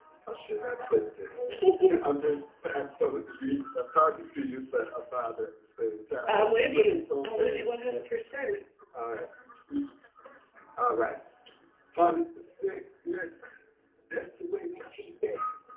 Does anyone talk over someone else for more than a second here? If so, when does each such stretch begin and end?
6.3-7.7

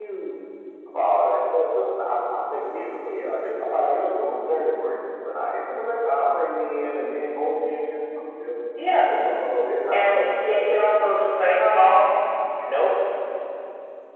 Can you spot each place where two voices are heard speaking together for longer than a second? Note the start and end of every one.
9.9-11.1

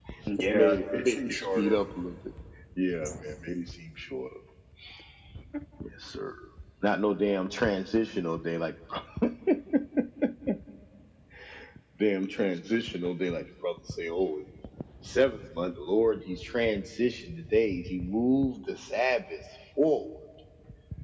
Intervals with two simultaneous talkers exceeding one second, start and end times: 0.5-1.8

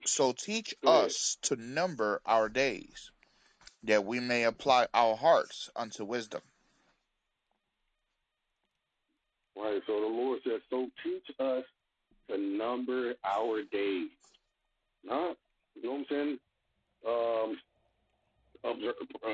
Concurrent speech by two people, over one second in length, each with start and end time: none

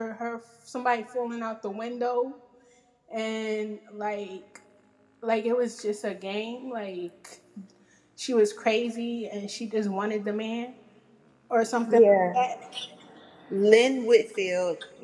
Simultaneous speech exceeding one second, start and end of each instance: none

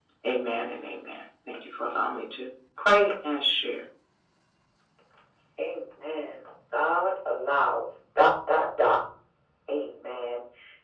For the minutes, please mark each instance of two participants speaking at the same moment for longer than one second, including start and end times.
none

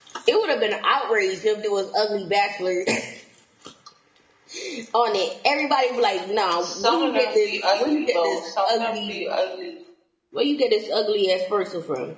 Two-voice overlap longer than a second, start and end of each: 6.8-9.2

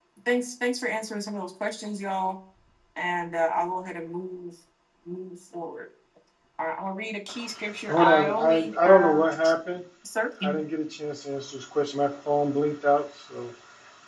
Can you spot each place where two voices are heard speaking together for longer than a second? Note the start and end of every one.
7.9-9.2

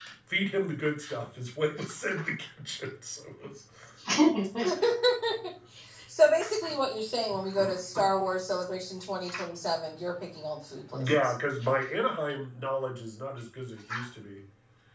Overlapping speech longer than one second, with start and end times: none

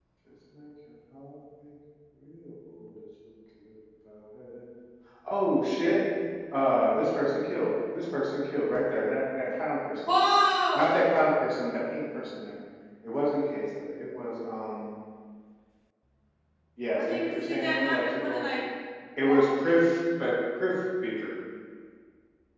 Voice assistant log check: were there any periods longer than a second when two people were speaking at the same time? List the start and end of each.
16.9-18.4

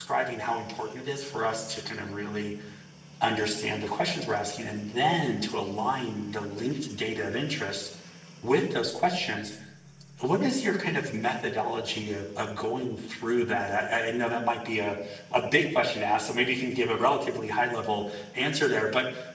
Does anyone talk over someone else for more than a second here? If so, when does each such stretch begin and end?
none

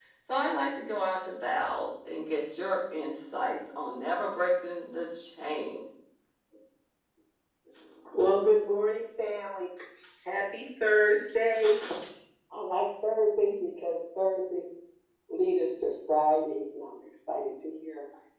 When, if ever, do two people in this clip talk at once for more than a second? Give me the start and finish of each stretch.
none

